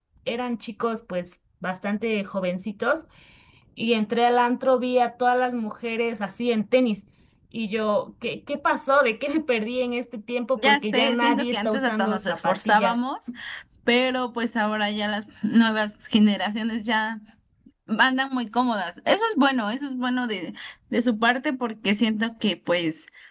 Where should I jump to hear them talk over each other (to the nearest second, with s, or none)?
11 s